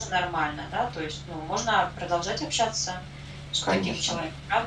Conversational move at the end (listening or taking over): taking over